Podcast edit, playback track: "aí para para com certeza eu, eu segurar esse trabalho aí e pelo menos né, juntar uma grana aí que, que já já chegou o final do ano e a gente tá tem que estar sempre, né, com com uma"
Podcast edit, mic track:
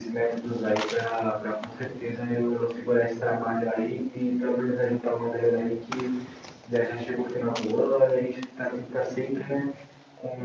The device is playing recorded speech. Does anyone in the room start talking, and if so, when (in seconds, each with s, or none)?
none